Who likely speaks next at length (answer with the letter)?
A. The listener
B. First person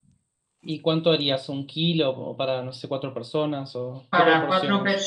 A